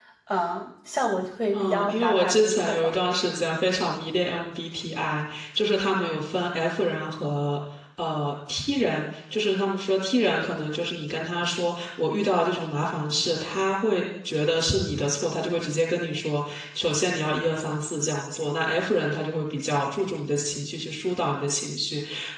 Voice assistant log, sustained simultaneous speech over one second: present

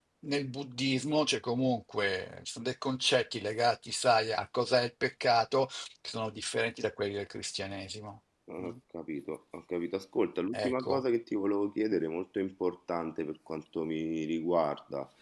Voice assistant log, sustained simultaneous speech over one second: none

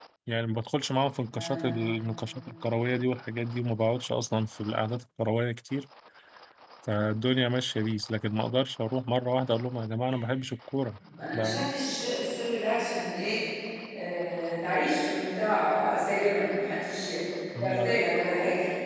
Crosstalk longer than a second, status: none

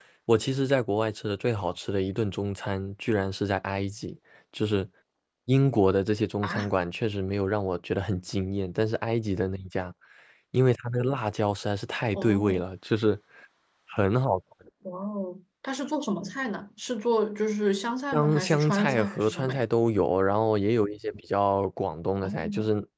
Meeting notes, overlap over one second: present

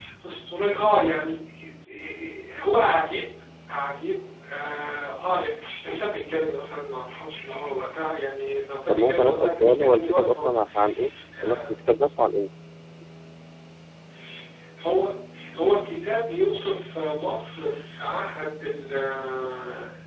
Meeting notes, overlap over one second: present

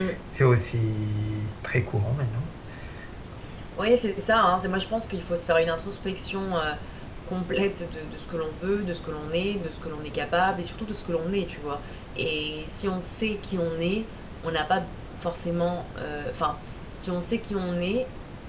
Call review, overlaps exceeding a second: none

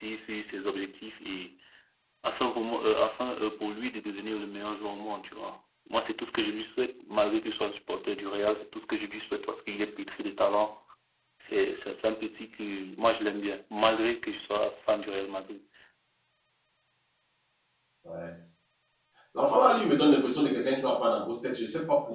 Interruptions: none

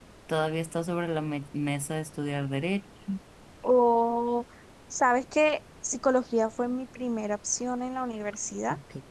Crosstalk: none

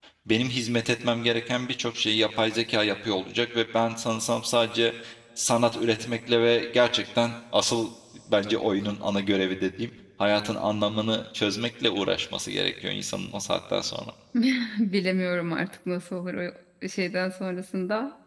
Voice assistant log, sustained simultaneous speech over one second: none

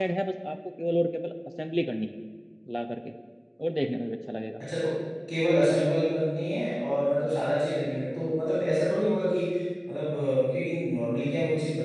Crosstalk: none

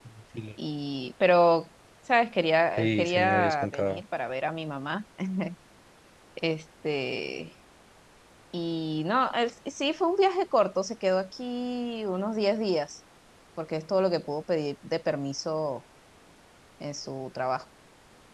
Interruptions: present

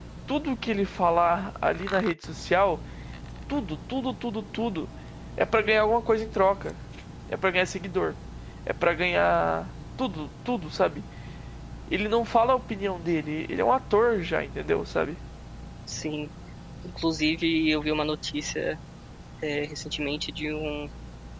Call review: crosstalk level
none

